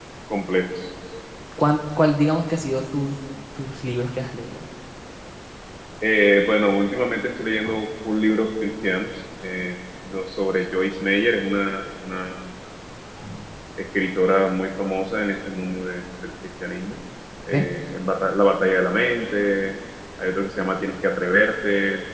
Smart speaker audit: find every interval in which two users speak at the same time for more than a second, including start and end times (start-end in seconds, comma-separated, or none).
none